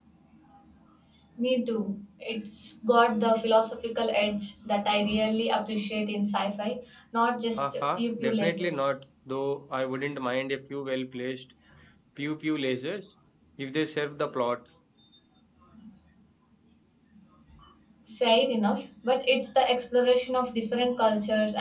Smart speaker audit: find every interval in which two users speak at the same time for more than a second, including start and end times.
7.6-8.9

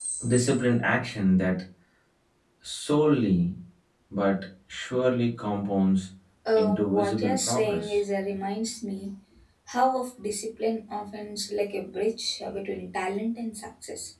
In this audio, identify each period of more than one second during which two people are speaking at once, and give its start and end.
6.5-8.0

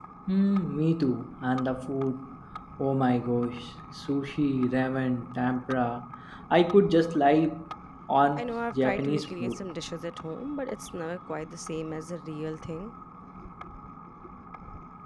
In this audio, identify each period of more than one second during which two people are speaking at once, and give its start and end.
8.4-9.6

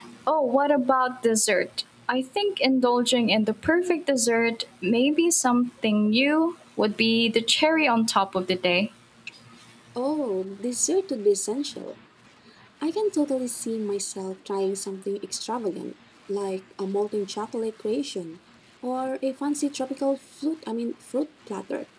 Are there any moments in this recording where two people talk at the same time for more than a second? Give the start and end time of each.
none

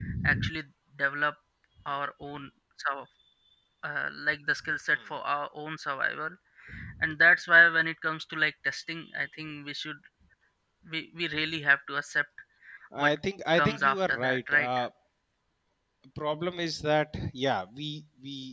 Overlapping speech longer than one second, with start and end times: 13.6-14.8

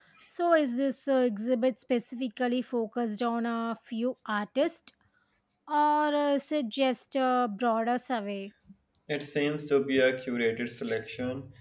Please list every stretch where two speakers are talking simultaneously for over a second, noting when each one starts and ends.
none

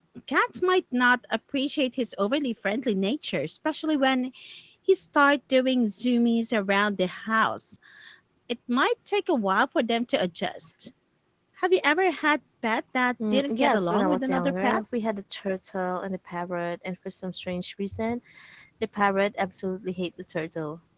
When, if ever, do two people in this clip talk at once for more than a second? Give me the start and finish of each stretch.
13.3-14.8

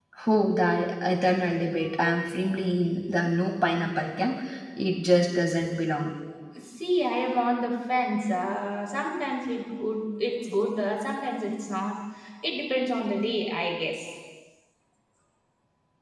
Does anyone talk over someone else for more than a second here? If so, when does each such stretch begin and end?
none

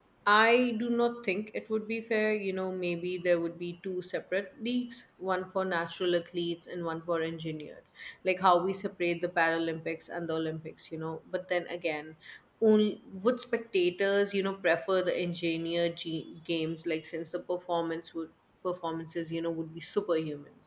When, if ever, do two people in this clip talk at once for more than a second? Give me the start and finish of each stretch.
none

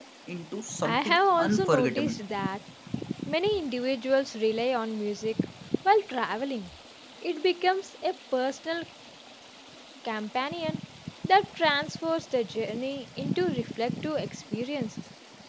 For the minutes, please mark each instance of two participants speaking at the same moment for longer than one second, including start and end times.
0.8-2.1

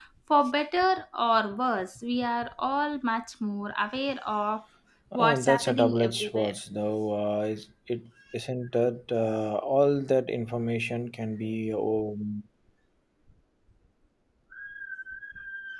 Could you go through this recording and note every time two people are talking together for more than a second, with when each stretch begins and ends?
5.1-6.5

